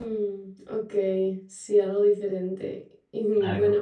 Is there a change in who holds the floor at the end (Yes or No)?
No